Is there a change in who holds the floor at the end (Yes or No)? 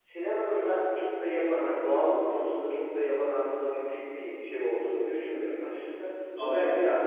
No